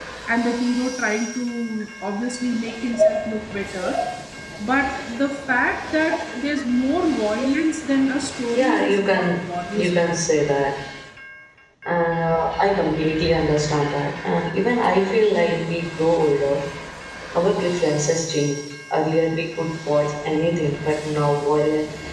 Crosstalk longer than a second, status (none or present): present